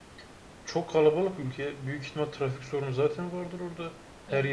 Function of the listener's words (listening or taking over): listening